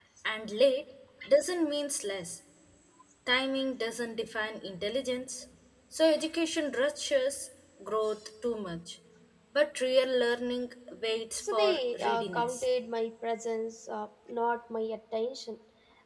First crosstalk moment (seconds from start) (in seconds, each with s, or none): 11.4 s